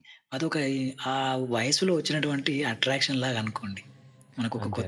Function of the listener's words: listening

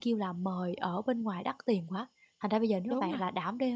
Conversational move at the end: listening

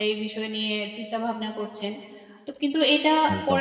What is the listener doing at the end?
listening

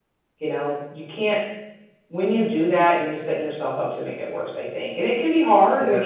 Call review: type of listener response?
listening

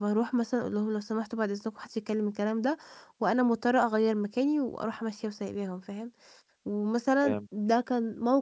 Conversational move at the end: listening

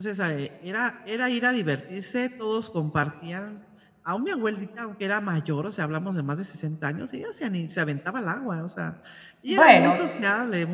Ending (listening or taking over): listening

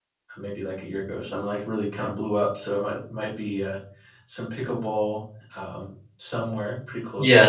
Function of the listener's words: taking over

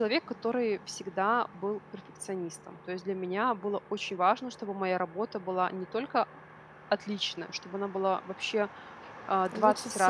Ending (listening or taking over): listening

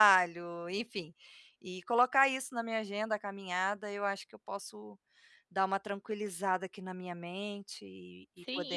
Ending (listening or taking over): taking over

